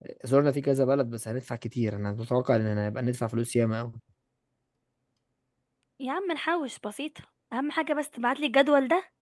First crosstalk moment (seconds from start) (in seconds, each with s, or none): none